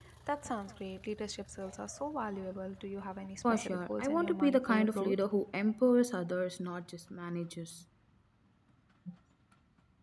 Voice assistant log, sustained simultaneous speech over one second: present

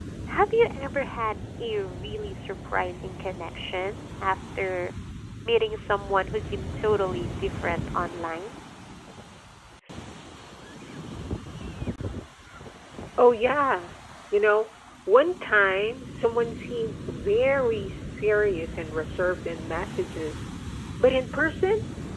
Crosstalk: none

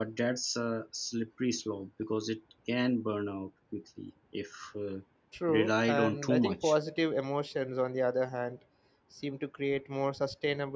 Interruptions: present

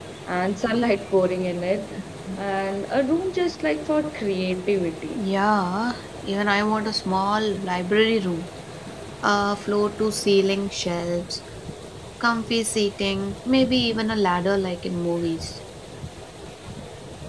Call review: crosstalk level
none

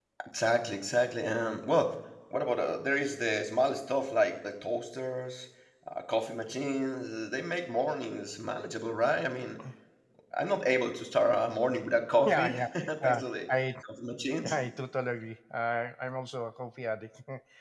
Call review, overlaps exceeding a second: present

